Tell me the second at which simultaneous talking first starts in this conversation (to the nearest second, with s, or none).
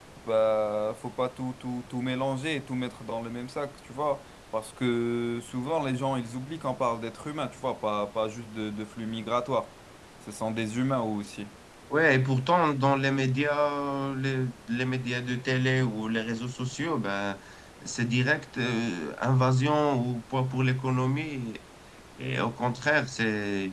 none